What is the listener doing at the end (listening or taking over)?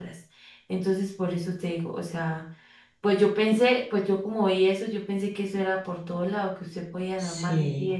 listening